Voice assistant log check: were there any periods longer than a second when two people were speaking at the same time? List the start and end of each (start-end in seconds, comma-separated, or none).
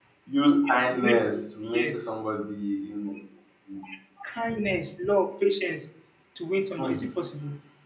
none